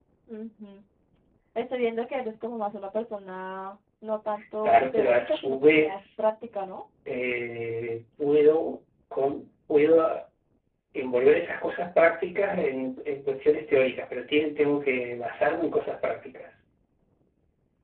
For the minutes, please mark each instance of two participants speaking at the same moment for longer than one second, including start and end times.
4.6-6.2

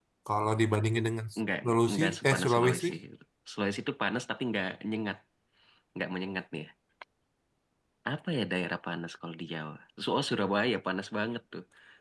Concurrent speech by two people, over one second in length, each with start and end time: 1.6-2.9

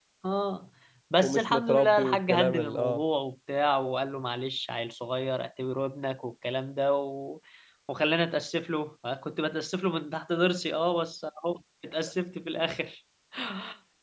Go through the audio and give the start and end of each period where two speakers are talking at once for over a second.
1.2-3.0

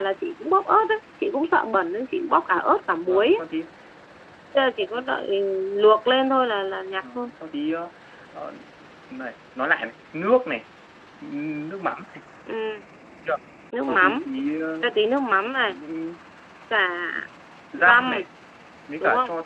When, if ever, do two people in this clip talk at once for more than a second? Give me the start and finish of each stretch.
none

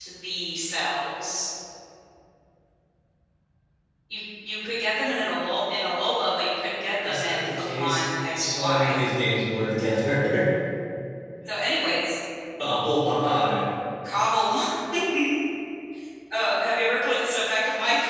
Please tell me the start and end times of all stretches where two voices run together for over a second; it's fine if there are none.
7.0-9.0

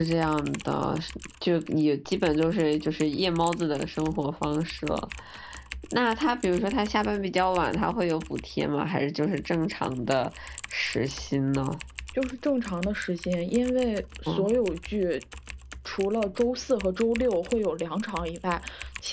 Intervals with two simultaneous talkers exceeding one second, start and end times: none

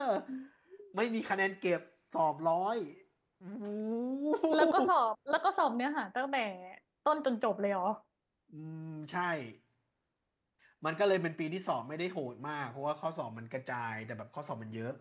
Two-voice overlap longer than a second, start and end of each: none

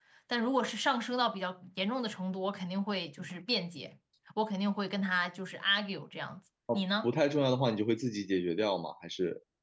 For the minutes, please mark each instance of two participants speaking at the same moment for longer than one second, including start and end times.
none

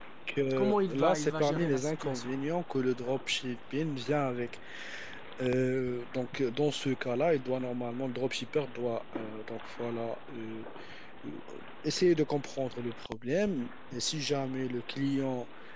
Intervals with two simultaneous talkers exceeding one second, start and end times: 0.5-2.3

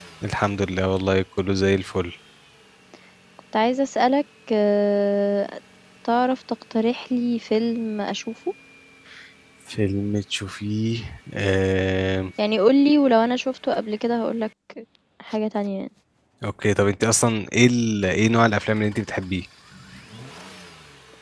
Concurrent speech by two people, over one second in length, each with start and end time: none

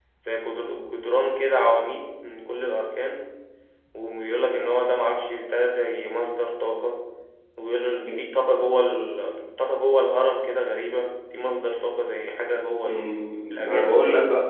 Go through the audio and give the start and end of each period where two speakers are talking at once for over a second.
none

